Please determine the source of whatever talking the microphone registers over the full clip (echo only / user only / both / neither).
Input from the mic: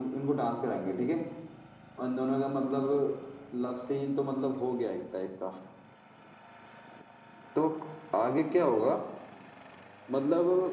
echo only